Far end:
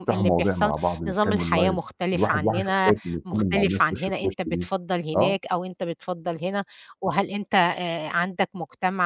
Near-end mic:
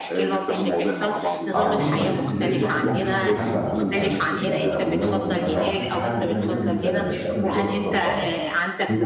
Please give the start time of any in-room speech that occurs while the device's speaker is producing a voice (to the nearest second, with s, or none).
2 s